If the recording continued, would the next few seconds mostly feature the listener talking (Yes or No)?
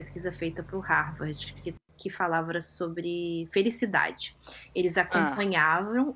No